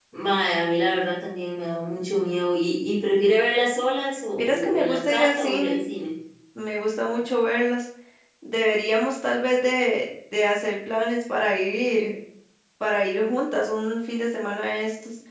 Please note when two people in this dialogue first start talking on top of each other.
4.3 s

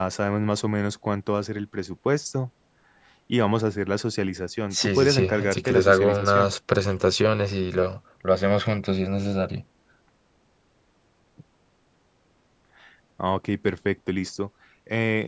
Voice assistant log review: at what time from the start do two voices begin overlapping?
4.7 s

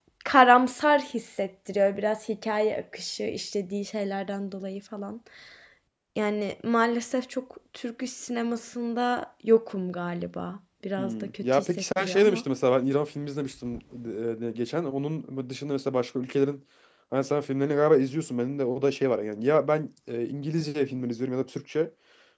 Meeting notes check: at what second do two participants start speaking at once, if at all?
11.0 s

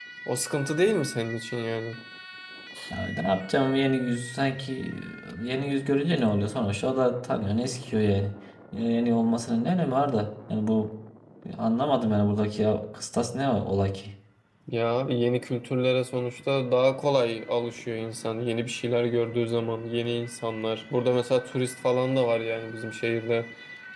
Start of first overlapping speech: none

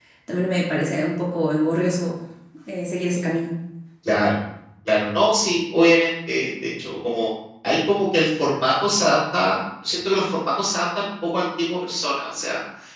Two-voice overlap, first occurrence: none

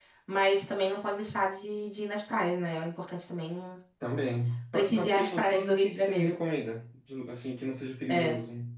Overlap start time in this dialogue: 4.7 s

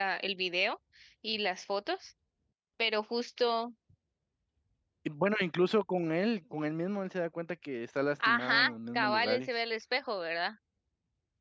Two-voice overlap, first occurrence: 8.2 s

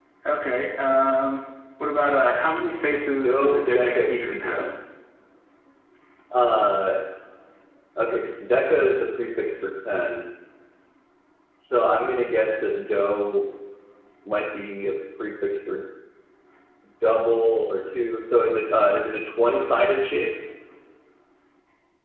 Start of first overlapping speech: 3.2 s

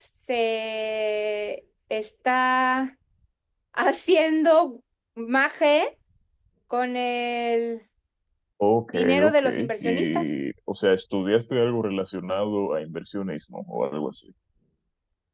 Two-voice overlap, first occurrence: 8.9 s

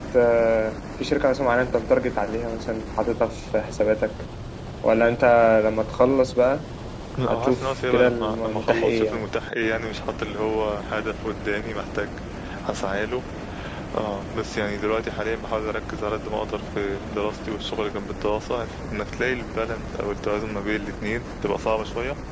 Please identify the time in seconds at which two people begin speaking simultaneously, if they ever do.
7.3 s

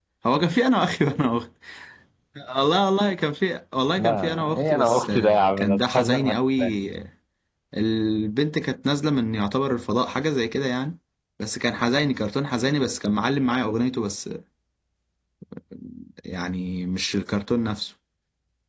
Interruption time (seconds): 4.0 s

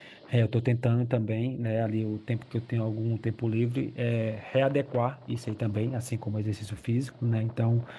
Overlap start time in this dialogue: none

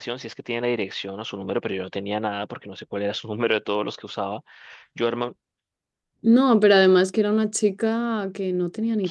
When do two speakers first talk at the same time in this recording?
none

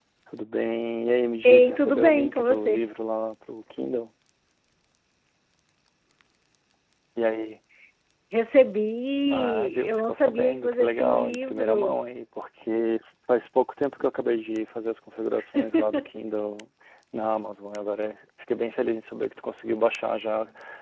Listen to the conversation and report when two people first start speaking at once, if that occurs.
1.4 s

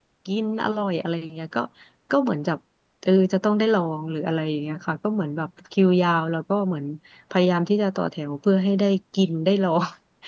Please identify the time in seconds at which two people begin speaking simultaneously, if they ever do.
none

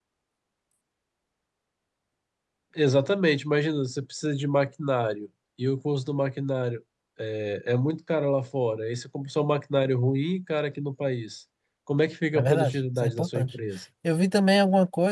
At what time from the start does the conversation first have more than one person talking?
12.3 s

